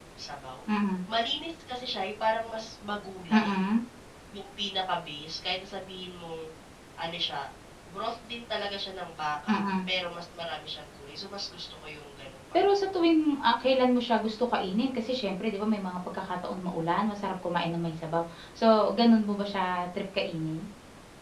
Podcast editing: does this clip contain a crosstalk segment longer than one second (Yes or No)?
No